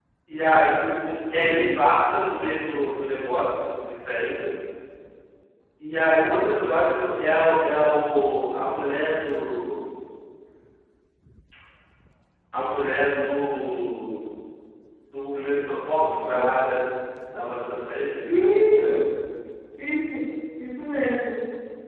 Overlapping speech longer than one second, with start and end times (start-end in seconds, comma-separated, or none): none